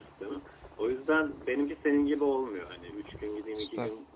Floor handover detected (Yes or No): No